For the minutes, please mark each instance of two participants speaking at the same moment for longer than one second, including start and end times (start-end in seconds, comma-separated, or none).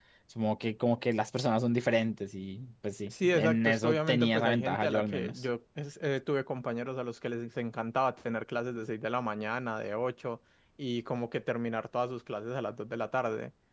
3.1-5.5